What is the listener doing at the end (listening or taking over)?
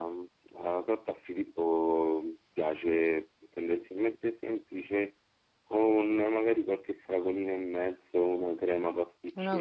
taking over